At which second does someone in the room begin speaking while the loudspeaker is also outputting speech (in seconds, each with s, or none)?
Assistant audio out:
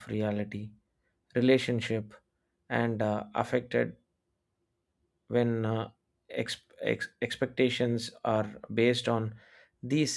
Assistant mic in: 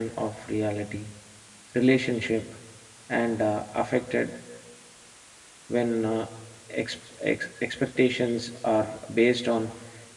none